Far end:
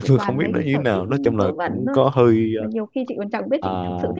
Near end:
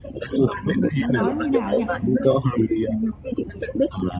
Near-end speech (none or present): present